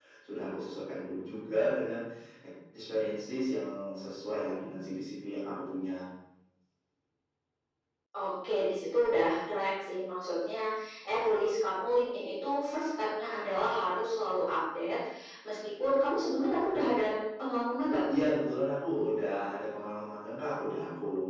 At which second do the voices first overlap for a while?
none

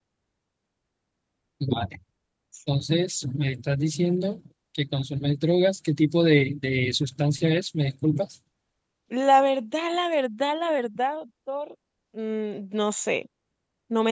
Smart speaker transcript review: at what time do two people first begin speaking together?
none

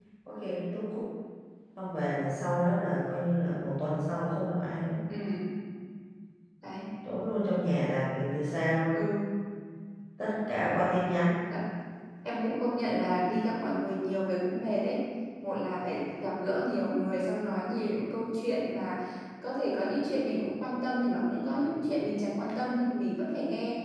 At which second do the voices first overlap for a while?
none

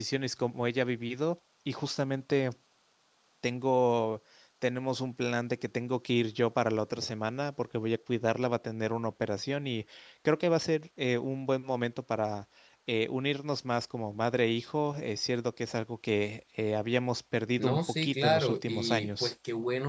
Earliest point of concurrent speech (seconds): 17.6 s

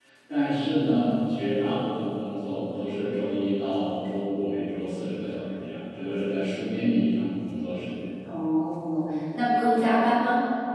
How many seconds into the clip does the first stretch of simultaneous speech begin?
none

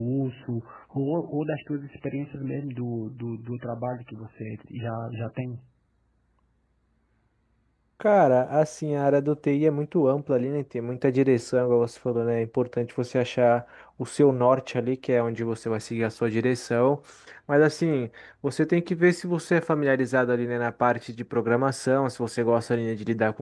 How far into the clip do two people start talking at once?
none

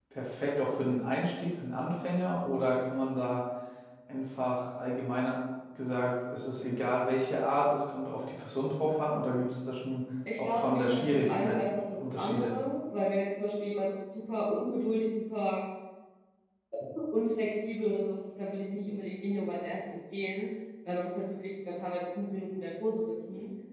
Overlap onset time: 10.3 s

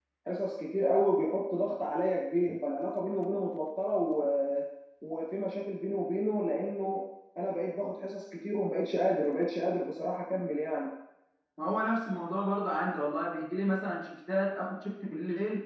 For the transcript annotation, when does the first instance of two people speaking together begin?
none

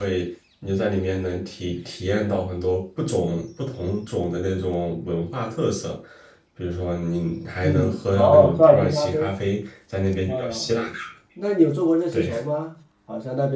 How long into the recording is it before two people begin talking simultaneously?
7.6 s

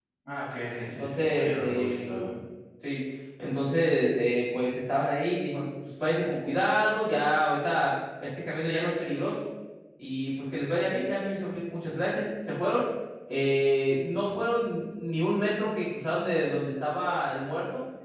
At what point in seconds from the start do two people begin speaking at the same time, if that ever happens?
1.0 s

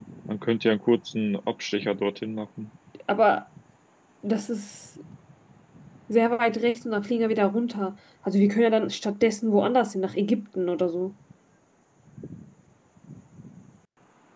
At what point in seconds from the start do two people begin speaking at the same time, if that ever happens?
none

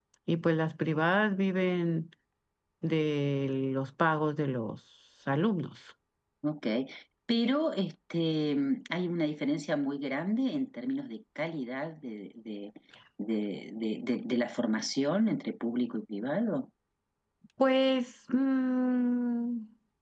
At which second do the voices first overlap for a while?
none

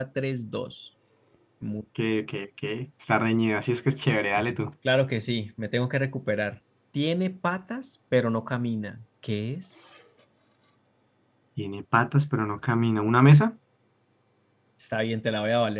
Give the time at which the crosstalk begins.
none

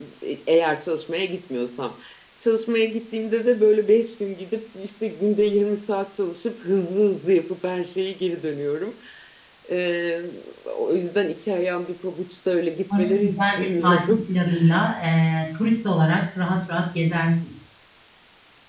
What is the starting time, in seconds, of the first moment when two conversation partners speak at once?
12.9 s

